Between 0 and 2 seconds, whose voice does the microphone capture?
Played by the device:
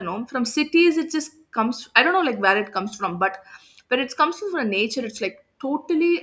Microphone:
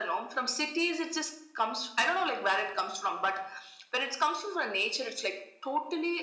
echo only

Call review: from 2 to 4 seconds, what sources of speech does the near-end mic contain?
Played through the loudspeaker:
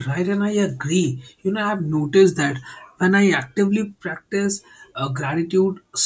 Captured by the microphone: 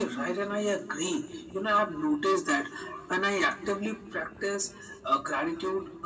echo only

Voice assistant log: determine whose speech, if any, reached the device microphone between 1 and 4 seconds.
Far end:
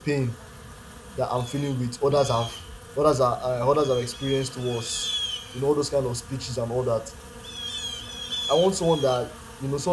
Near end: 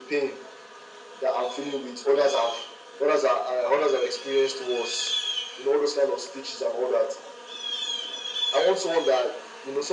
echo only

